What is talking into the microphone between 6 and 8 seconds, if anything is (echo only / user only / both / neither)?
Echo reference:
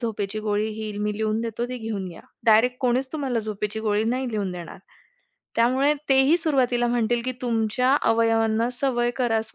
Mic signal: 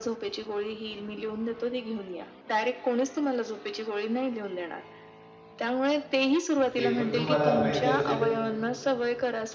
both